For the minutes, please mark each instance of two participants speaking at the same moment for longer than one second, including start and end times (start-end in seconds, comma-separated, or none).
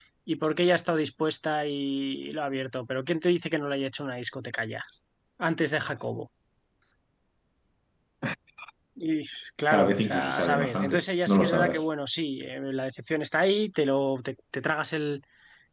9.7-11.8